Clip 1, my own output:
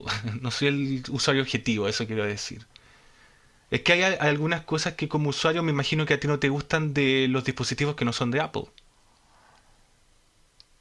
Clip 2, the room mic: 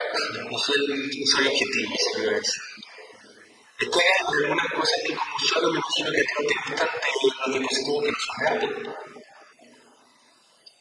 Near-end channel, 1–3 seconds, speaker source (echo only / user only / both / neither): echo only